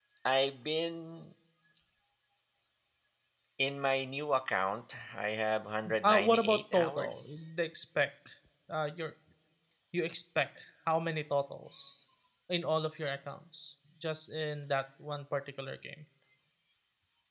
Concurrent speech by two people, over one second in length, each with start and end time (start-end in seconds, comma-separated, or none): 6.0-7.5